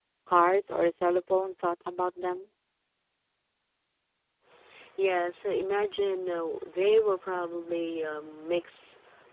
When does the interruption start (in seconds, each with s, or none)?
none